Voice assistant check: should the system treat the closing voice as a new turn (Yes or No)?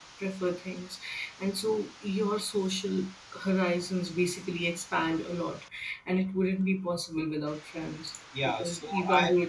Yes